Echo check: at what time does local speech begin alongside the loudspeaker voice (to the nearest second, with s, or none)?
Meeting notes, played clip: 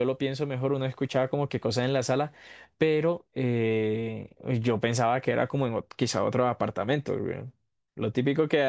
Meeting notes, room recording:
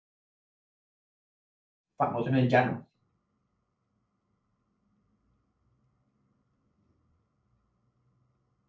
2 s